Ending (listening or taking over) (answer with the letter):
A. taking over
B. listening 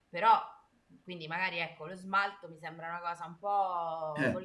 B